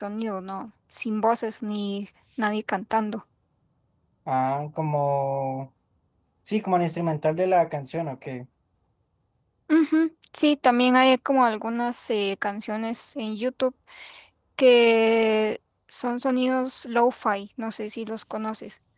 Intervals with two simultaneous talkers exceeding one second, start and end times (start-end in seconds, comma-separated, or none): none